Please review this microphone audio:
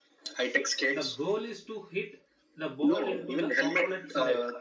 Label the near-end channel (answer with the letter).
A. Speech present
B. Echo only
A